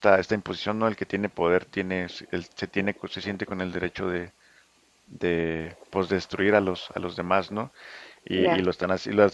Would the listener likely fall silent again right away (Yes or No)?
Yes